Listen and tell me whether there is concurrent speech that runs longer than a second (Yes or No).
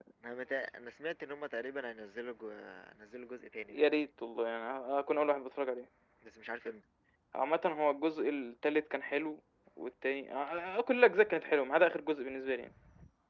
No